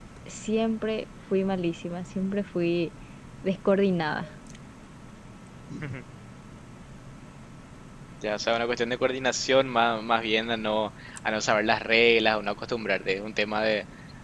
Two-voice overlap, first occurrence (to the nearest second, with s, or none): none